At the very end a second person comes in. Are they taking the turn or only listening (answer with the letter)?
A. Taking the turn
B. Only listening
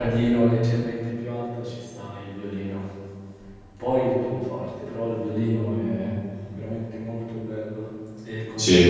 A